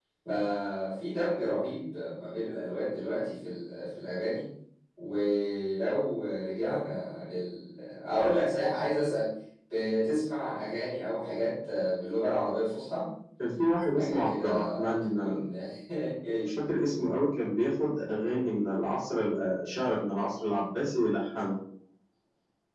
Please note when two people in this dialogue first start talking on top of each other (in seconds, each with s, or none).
14.0 s